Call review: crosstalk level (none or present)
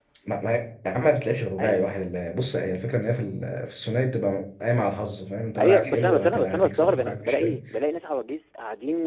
present